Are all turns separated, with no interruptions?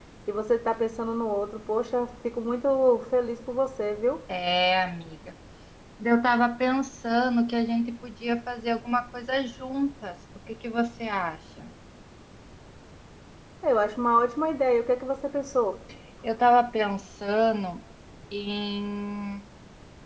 Yes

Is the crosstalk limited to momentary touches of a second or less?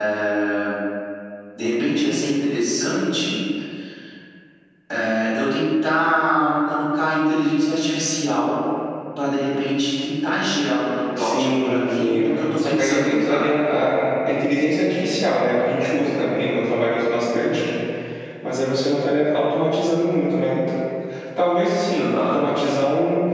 No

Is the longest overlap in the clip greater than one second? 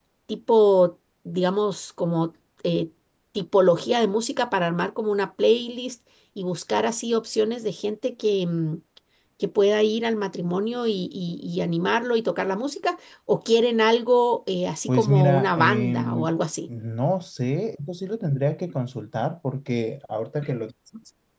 Yes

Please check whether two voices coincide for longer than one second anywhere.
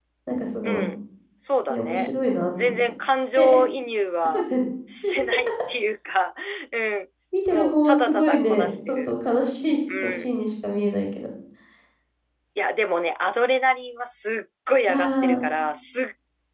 Yes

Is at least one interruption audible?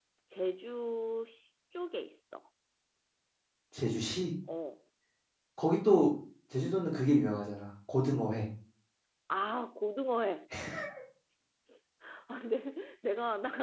No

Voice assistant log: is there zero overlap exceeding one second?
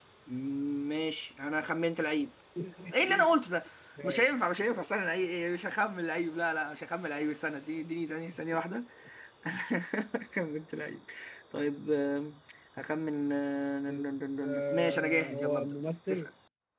No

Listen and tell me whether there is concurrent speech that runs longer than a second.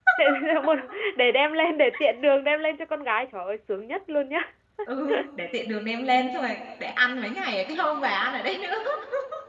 No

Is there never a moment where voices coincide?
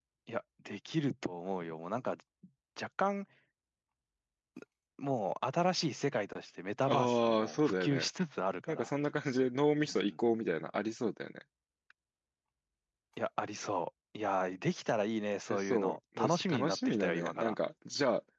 No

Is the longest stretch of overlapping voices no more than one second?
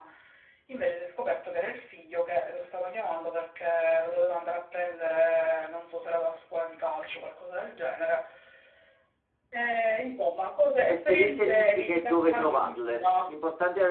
No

